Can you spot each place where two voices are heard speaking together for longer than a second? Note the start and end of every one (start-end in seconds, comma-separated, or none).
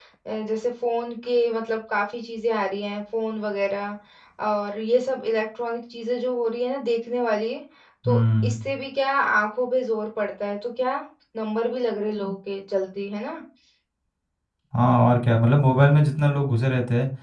none